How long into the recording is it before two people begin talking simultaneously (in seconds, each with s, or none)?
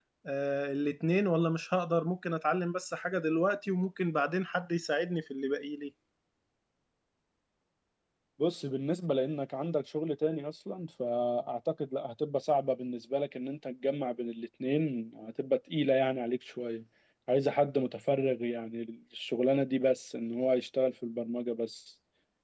none